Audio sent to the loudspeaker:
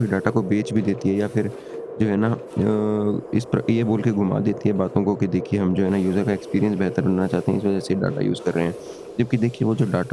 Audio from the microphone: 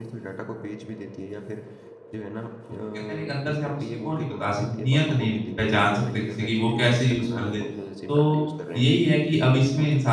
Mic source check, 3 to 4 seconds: both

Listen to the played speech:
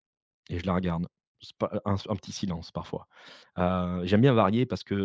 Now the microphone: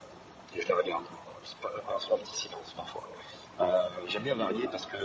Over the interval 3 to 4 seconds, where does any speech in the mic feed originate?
echo only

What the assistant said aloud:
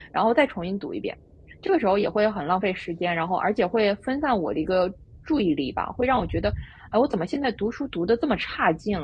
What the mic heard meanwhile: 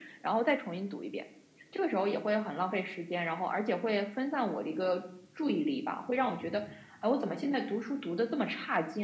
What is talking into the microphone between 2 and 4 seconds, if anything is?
echo only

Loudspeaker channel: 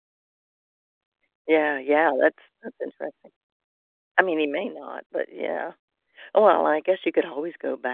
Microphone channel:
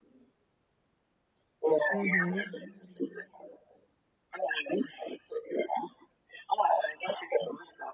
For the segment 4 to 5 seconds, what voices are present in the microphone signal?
echo only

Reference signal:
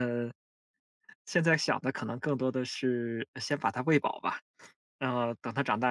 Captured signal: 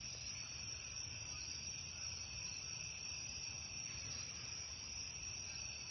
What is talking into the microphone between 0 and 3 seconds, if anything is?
neither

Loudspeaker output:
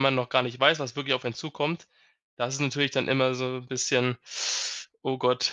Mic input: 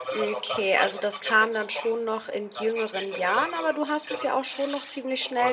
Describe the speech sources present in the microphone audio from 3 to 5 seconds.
both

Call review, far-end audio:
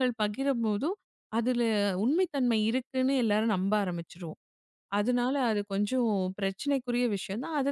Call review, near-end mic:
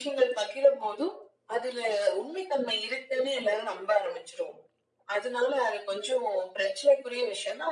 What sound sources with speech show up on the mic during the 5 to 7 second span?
echo only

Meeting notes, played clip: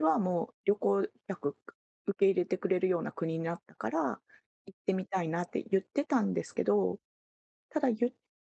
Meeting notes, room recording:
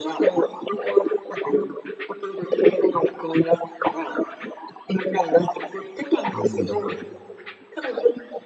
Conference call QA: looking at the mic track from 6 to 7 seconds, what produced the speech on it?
both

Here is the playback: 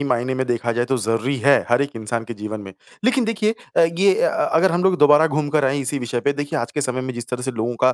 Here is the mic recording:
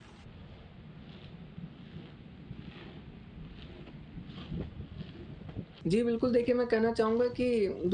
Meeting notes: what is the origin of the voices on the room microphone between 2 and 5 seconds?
neither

